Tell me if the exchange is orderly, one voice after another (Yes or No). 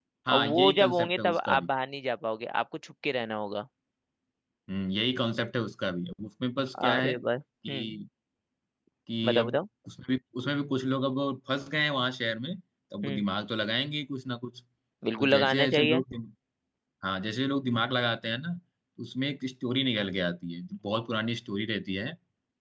No